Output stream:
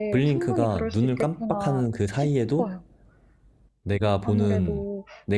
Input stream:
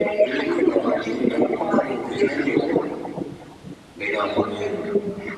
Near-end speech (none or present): none